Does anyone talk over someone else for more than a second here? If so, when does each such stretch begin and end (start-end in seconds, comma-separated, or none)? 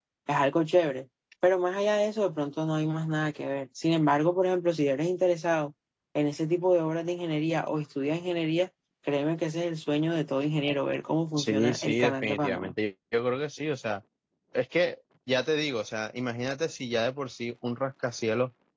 11.4-12.7